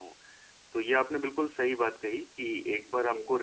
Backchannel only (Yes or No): Yes